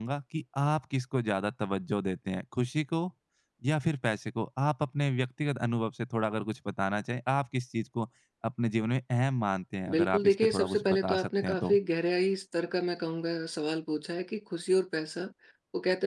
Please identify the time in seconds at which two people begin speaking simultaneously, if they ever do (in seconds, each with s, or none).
9.9 s